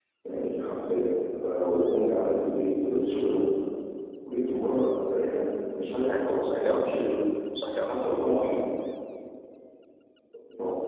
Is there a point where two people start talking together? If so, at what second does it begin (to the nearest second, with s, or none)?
6 s